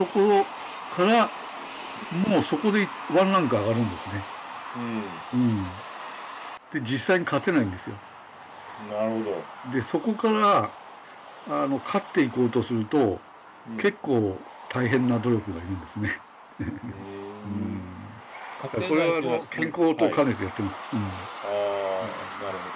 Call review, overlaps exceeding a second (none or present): present